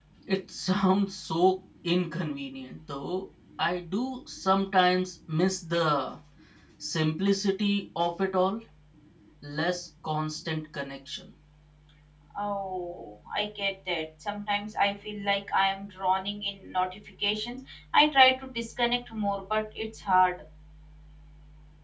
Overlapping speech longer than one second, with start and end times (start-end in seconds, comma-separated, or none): none